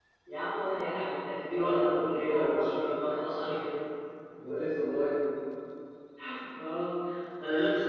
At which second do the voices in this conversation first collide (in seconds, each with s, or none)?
1.5 s